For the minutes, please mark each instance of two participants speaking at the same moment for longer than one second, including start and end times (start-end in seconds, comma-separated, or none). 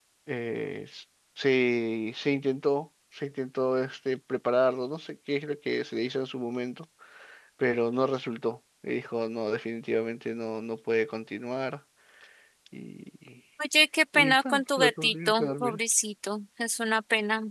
14.1-15.8